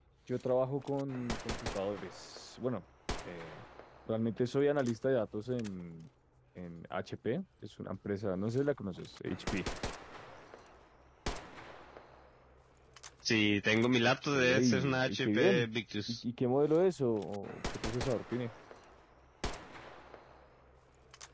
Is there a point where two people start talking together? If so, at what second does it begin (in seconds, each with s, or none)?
14.3 s